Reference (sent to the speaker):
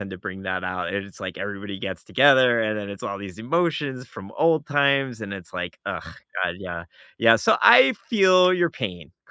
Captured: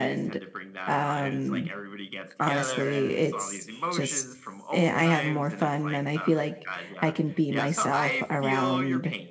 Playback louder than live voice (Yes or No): No